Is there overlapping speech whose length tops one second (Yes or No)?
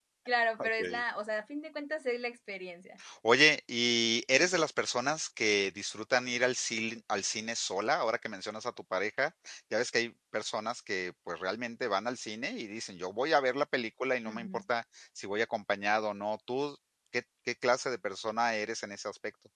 No